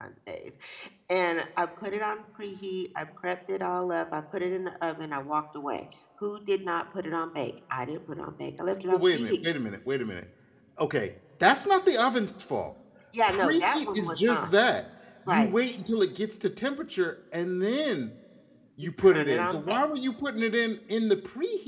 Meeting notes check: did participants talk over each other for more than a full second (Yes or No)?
Yes